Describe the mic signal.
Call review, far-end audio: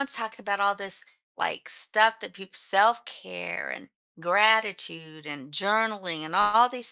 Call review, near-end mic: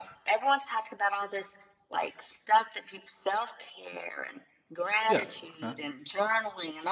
both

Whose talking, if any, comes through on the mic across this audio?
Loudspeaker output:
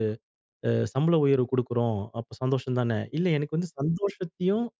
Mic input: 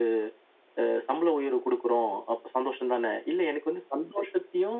echo only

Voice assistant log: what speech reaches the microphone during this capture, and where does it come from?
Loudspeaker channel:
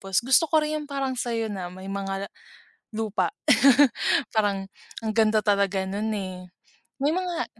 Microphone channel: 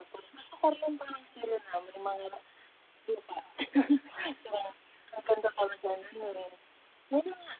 echo only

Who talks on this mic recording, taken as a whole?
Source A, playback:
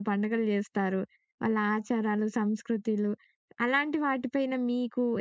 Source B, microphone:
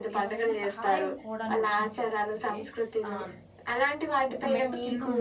both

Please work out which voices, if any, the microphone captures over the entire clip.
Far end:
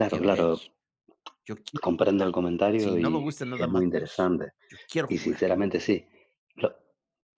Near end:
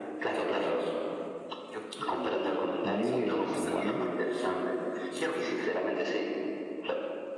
both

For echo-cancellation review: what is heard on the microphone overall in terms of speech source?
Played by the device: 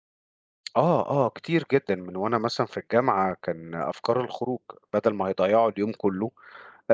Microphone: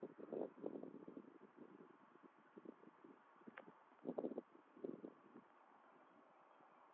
neither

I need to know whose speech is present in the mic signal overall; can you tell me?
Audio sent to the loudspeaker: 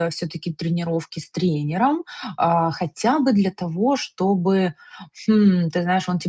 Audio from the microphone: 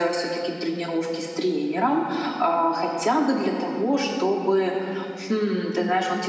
echo only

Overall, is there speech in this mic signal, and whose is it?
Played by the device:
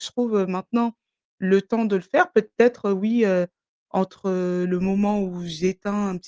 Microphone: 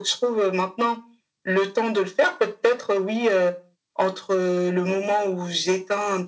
echo only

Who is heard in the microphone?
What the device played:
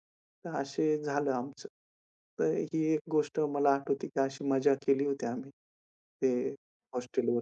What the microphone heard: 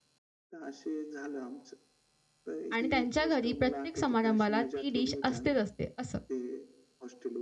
both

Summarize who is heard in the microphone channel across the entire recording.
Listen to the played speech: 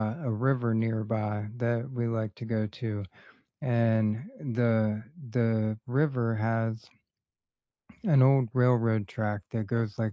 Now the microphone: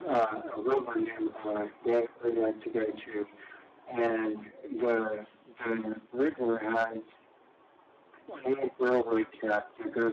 echo only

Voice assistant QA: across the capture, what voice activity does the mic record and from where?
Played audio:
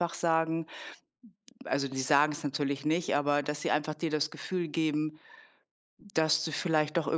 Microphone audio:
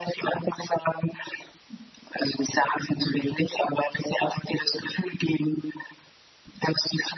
echo only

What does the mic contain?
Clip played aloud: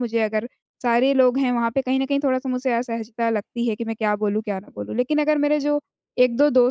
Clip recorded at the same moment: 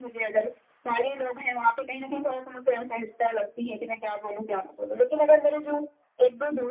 echo only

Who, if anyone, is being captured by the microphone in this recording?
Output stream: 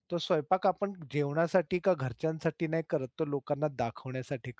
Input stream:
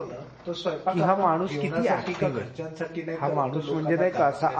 both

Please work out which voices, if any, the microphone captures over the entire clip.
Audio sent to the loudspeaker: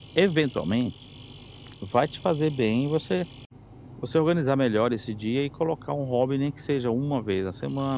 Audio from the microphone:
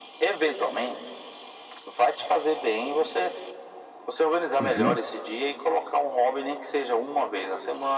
both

